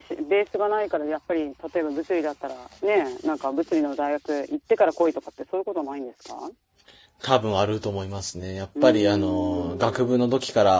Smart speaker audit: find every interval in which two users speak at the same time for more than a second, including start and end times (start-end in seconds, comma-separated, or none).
8.8-10.2